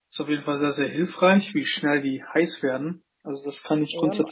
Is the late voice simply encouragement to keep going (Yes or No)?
No